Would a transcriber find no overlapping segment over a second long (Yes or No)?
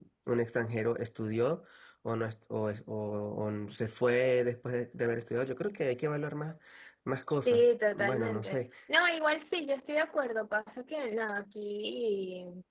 No